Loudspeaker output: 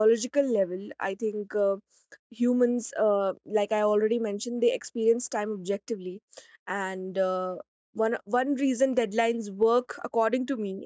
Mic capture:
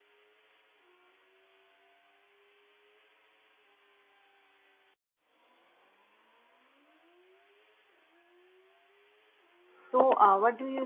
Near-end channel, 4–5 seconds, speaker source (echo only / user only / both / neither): neither